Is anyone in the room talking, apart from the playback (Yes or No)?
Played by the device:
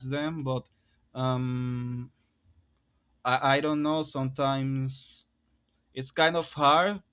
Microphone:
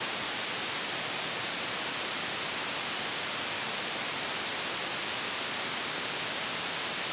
No